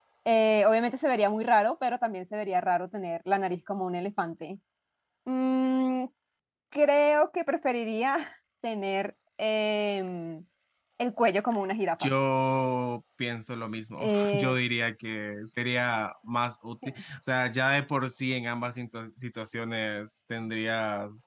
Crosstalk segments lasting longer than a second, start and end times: none

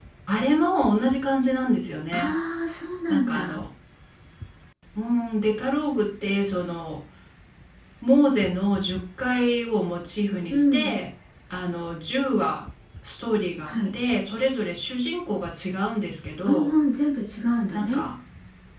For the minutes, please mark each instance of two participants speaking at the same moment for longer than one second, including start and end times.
none

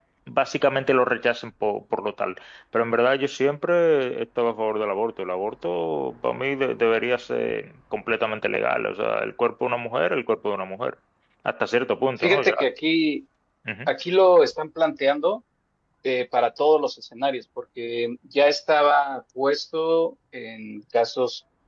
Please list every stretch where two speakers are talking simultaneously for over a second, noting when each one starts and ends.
none

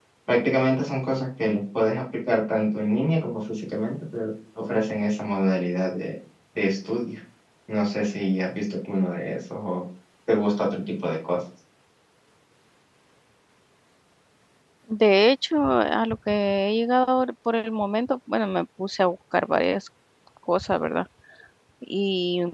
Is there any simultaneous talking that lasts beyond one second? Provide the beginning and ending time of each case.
none

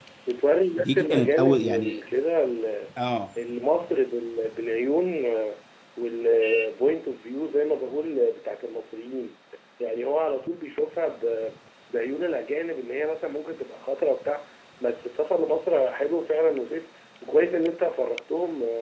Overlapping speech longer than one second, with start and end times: 0.8-2.0

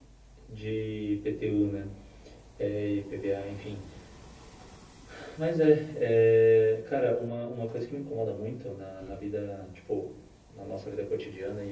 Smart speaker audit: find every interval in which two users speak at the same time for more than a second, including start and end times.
none

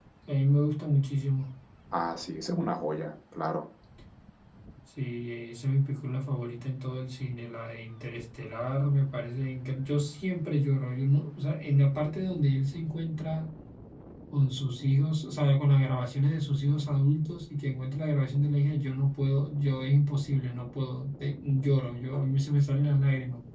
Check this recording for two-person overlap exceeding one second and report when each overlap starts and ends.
none

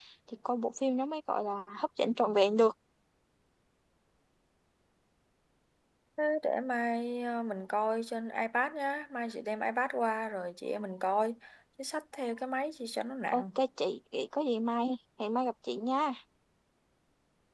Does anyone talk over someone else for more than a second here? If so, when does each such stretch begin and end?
none

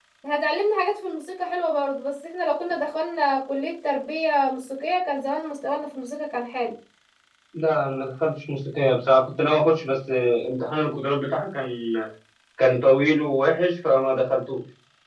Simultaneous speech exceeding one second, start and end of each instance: none

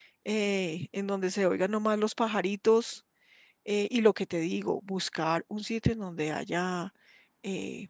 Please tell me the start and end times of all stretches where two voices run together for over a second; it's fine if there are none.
none

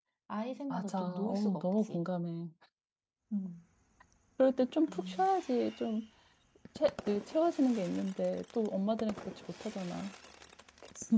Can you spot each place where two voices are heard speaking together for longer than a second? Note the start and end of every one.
0.7-2.1

